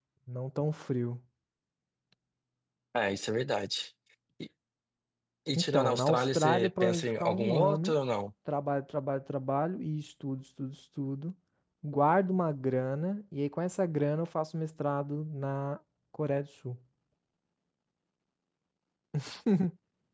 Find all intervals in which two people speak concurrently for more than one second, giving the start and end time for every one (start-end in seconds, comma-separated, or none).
5.5-7.9